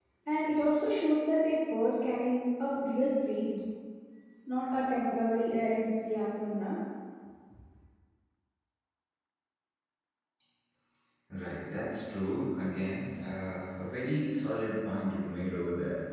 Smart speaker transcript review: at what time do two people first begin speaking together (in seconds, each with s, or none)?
none